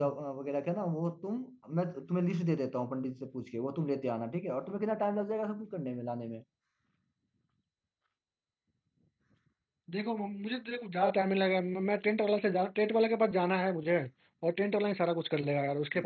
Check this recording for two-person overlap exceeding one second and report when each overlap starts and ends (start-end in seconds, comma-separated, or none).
none